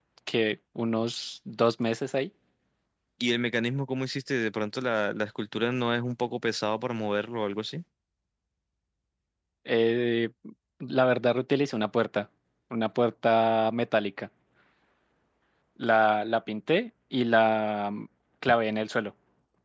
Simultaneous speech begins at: none

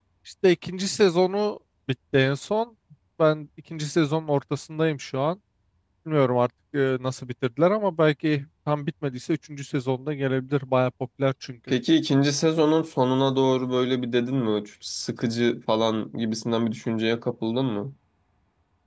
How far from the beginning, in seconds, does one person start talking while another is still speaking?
none

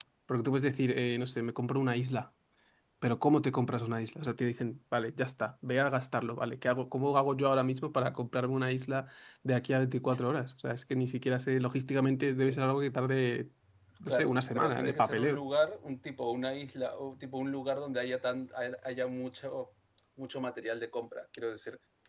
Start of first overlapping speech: 14.1 s

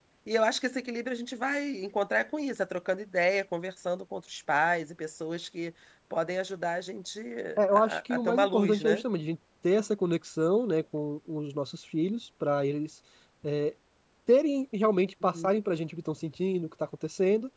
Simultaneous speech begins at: 7.7 s

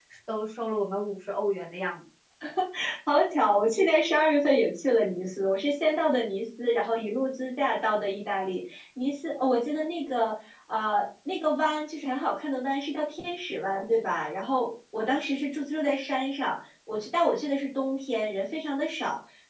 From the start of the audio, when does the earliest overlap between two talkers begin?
none

